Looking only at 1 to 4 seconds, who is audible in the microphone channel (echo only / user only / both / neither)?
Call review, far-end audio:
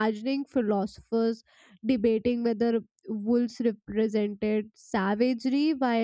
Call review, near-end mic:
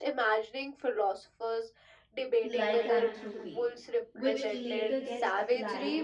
both